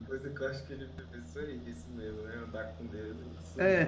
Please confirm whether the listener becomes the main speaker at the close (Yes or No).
Yes